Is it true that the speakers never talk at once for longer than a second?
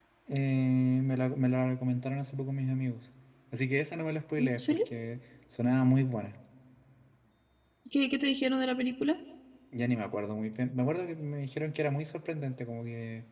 Yes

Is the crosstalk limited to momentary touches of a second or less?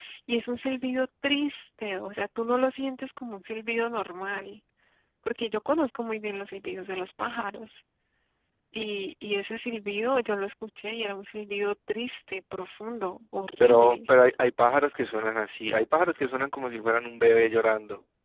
Yes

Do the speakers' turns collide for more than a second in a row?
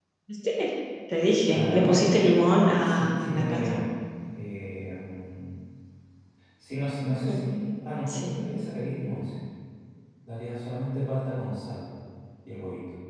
Yes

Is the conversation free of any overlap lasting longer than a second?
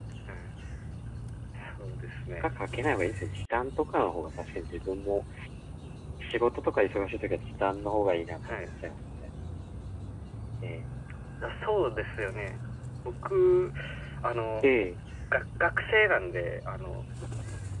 Yes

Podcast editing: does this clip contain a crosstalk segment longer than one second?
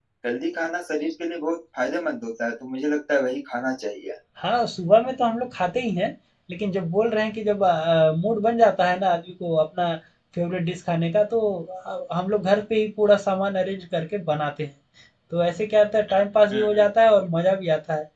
No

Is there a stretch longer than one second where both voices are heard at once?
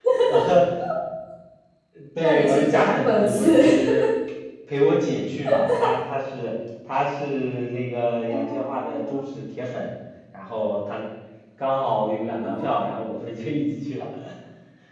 Yes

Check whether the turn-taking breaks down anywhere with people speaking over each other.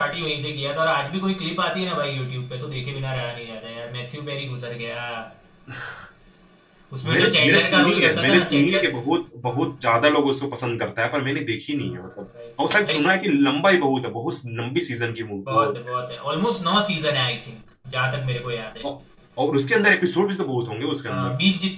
Yes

